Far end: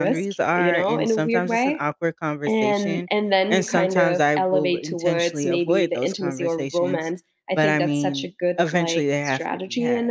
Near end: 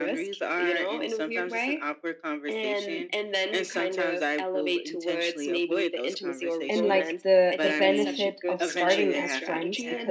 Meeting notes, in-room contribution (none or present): present